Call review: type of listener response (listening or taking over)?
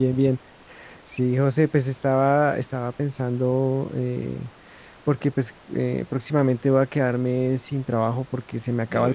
listening